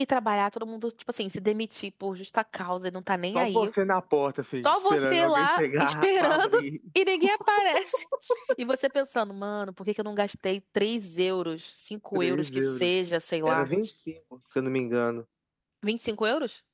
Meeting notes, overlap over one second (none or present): present